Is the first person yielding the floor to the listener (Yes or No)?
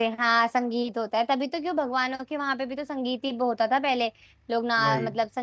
No